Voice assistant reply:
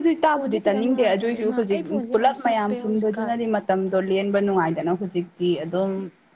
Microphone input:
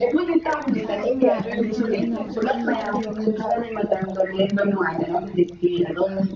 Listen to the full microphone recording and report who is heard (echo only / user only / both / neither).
both